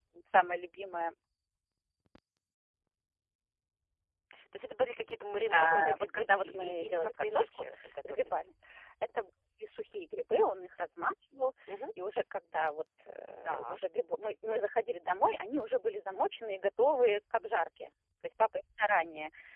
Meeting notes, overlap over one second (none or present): present